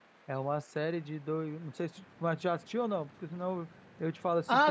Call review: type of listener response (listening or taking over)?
taking over